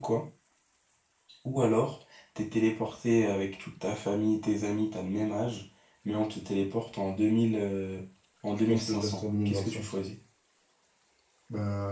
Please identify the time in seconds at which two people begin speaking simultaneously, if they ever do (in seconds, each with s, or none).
8.7 s